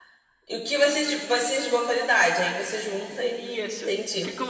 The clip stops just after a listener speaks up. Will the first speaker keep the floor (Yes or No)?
No